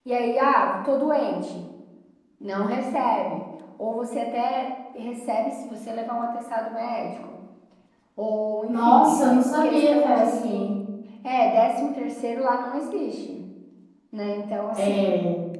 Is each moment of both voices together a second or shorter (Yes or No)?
No